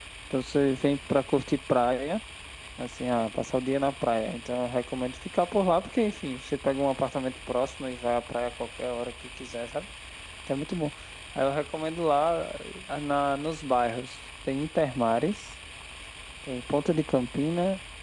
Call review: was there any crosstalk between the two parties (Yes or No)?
No